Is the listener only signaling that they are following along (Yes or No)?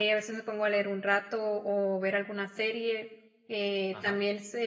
Yes